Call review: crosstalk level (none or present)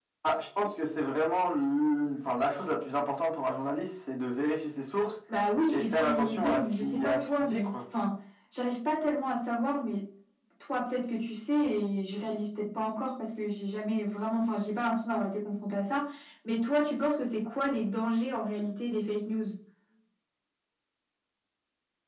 present